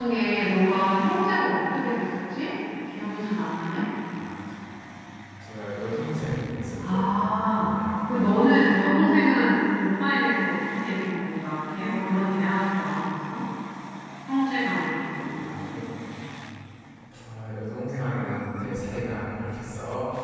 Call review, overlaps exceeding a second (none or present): none